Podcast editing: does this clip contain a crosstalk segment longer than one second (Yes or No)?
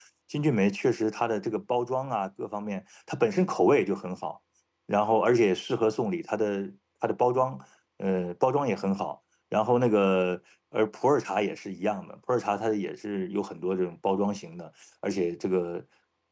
No